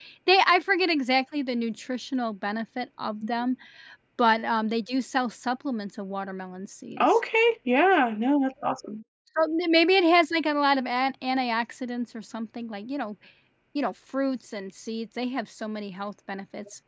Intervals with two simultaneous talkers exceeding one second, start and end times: none

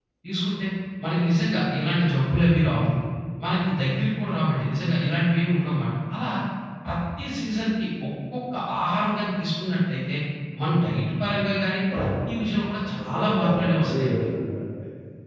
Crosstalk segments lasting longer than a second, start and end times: 13.0-14.2

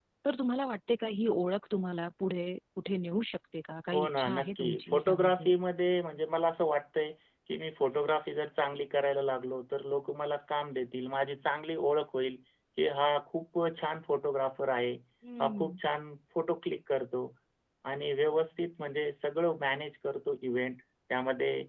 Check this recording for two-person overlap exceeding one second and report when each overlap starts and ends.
3.9-5.5

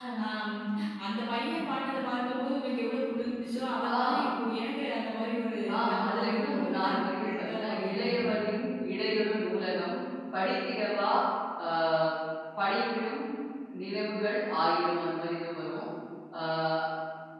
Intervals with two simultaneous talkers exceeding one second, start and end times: 5.7-8.3

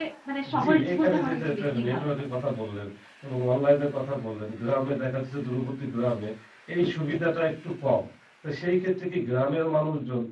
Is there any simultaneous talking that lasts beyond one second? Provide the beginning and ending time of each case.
0.6-2.2

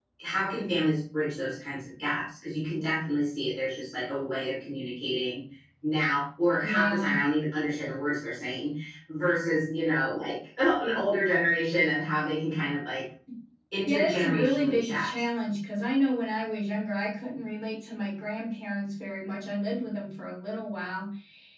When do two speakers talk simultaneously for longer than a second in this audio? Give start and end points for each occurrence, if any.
13.9-15.1

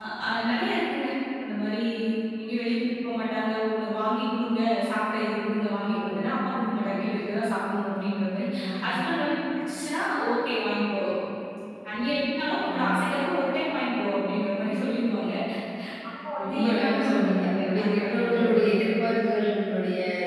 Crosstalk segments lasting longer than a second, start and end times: 16.4-19.2

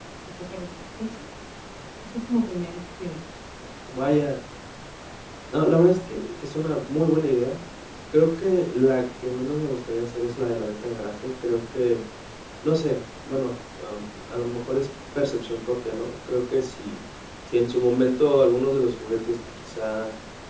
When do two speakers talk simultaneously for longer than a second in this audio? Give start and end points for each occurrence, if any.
none

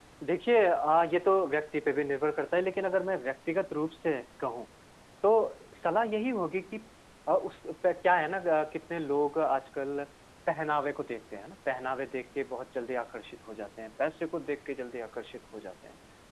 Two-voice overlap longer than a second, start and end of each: none

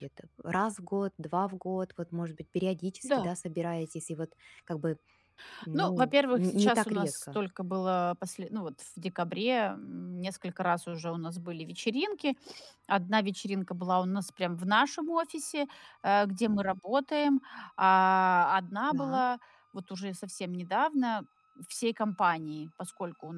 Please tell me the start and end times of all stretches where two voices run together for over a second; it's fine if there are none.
5.7-7.4

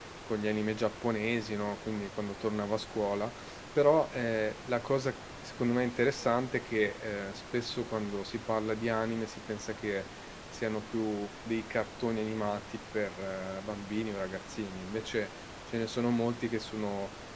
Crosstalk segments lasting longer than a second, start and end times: none

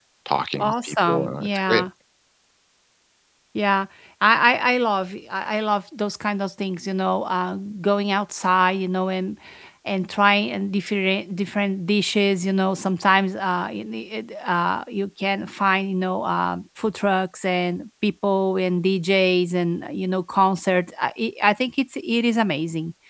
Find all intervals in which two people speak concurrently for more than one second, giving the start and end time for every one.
0.6-1.9

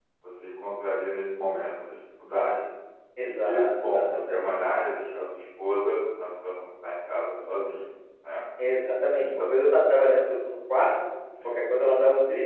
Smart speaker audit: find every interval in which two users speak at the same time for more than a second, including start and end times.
3.2-4.5

